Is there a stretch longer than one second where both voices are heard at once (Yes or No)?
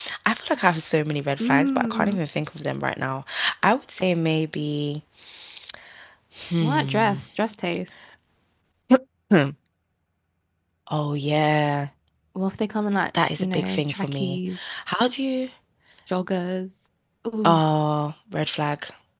Yes